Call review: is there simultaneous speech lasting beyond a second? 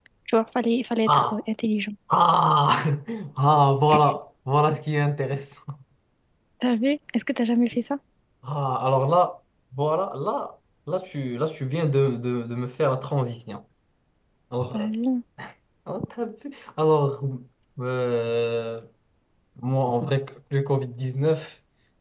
No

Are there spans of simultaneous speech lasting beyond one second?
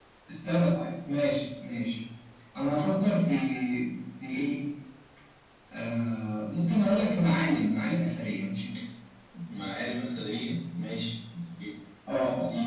No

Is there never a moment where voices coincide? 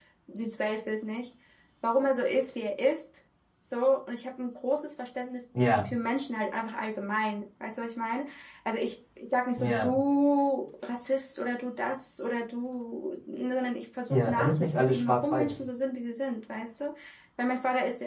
No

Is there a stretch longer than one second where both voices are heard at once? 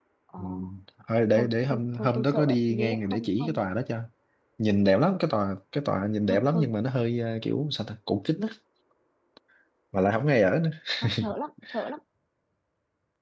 Yes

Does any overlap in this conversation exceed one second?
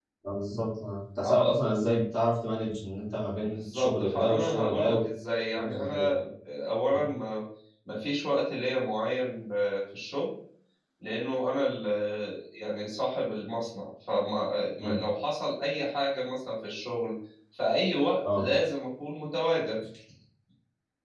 Yes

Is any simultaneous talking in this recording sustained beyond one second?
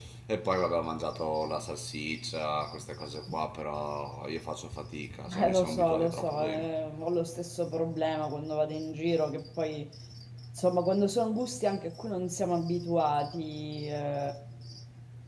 Yes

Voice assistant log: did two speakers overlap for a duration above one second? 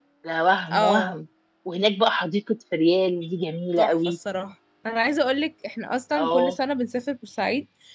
No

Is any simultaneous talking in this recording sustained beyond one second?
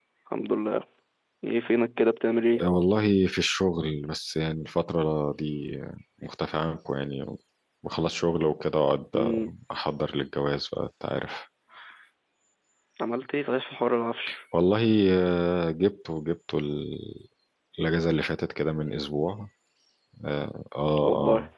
No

